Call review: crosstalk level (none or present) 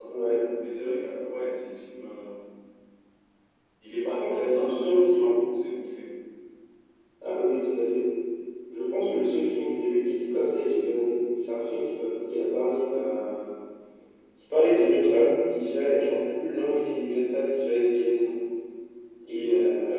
present